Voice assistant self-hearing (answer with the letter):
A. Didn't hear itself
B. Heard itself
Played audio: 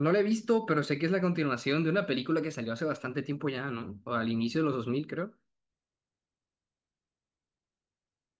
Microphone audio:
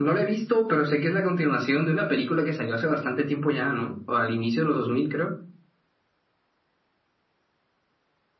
B